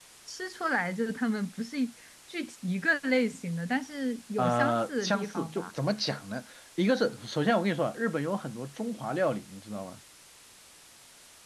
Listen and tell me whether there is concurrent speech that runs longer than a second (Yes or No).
Yes